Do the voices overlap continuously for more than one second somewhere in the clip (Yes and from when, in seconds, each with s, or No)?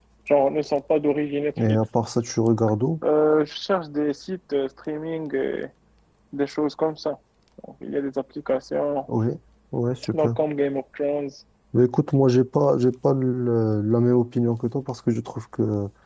No